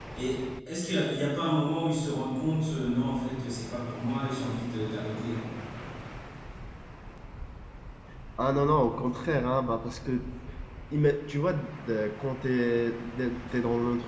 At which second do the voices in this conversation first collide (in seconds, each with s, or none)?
none